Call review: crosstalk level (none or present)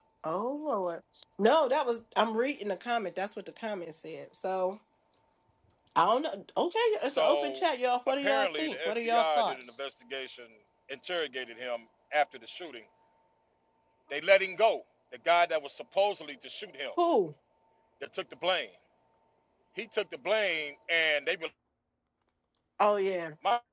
present